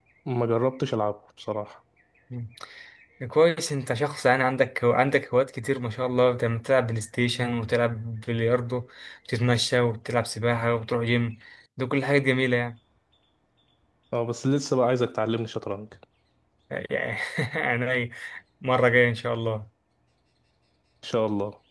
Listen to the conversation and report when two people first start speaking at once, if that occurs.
none

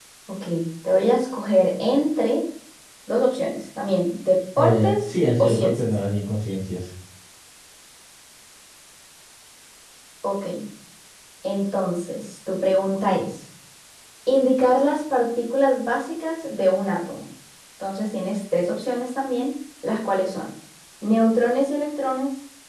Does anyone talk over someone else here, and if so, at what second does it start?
5 s

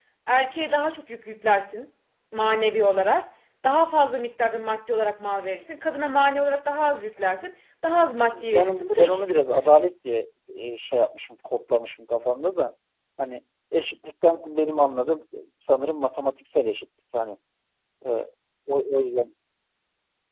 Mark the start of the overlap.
8 s

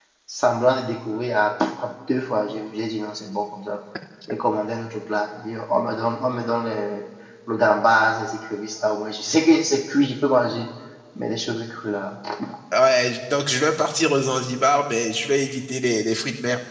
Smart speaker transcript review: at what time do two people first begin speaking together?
none

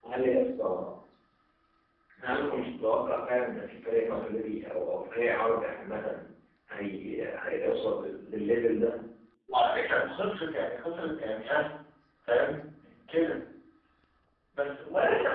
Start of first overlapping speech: none

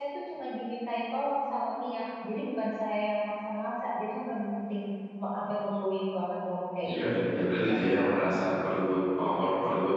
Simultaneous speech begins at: 7 s

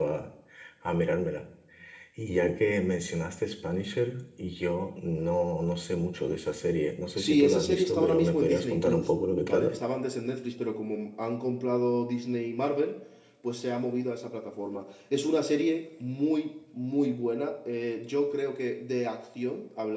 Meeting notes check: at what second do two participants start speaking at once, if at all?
7 s

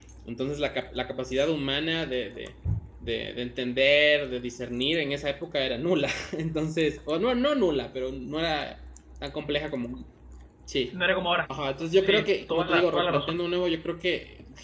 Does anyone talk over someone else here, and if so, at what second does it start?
12 s

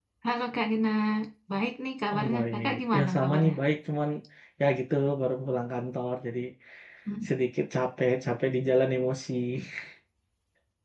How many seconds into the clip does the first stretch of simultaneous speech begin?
2 s

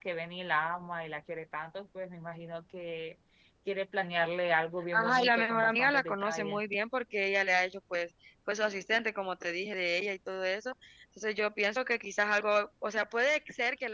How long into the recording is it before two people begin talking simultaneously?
5 s

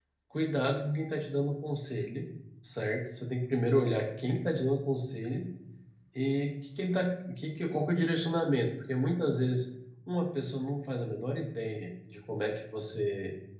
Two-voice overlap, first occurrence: none

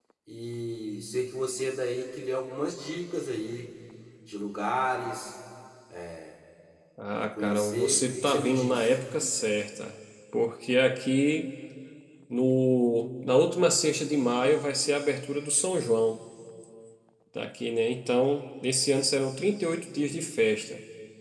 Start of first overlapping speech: 7 s

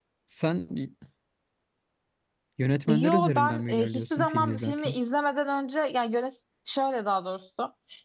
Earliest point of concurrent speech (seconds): 3 s

